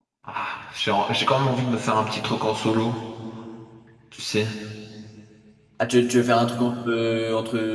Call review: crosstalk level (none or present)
none